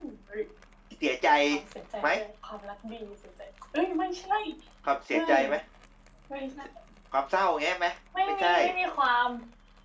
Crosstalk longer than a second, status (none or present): none